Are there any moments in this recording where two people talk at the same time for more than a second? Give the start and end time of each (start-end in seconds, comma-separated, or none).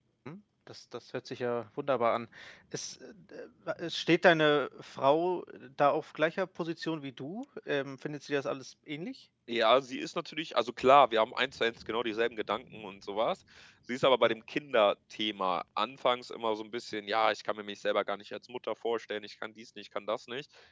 none